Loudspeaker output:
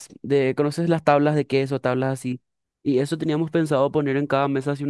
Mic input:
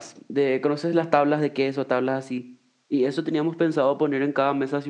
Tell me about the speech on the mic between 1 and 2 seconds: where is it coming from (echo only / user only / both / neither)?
echo only